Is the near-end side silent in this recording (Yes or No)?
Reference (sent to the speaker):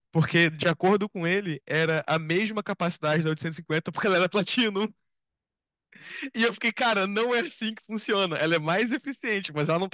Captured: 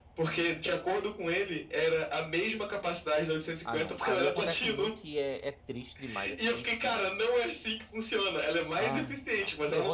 No